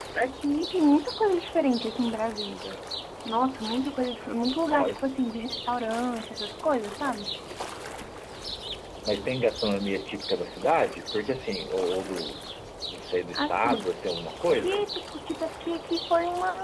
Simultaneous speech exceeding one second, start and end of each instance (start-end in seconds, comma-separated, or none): none